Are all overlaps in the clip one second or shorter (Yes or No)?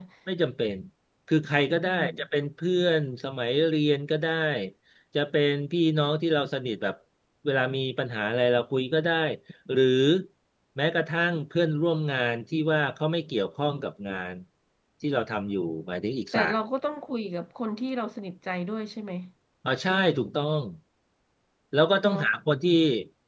Yes